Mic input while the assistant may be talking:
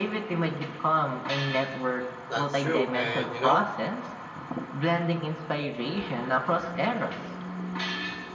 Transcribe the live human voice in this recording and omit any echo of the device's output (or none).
That's true, and you know,